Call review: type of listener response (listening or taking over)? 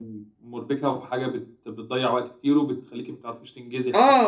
taking over